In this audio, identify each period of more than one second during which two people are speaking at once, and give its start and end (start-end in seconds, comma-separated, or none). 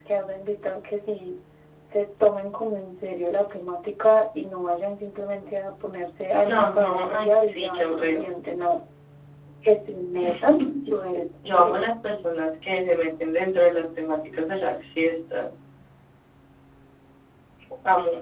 6.4-8.3